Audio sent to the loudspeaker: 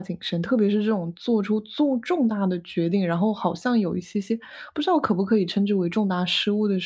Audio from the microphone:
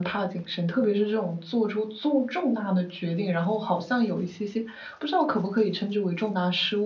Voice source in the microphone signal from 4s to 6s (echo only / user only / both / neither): echo only